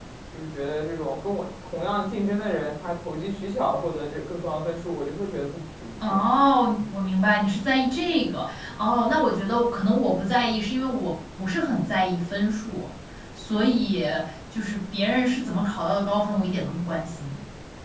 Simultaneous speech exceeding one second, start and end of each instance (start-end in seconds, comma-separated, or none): none